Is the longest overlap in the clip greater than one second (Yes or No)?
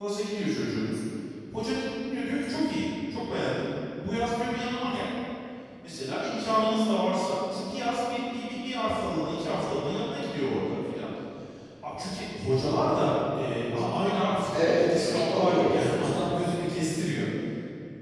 Yes